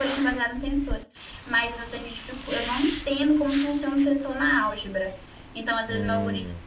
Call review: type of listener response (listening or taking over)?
listening